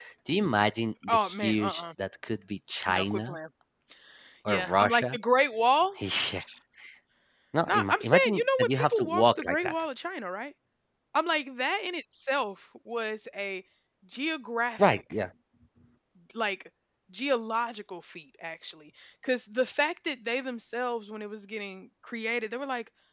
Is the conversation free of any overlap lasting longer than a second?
No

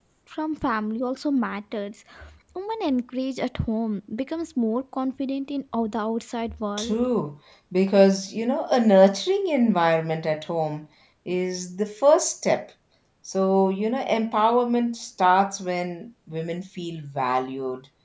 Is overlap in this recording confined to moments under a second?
Yes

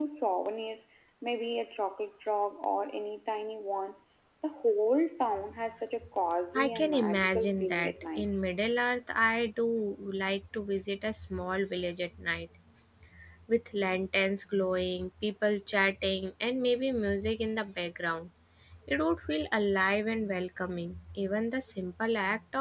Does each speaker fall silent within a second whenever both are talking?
No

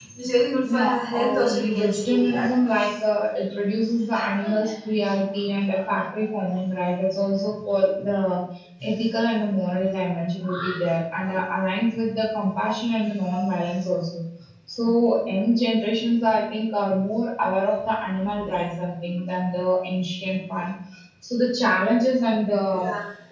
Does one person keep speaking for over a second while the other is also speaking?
Yes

